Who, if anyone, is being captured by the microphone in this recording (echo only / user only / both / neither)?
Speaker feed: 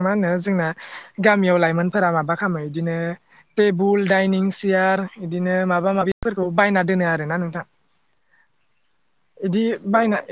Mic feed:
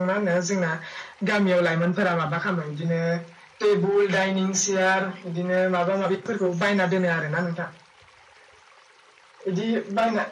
echo only